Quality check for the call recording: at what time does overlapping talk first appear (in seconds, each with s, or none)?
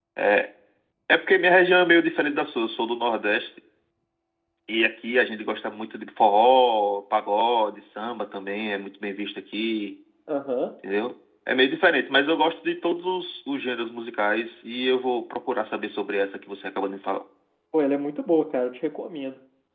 none